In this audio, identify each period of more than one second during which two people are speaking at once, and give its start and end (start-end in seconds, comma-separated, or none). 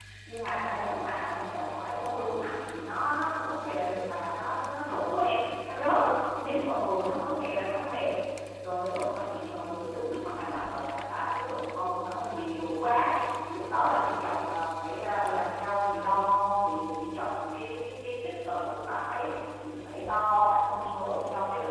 none